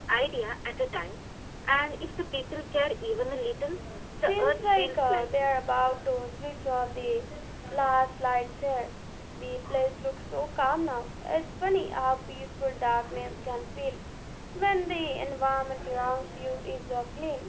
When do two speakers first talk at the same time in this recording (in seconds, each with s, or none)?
4.2 s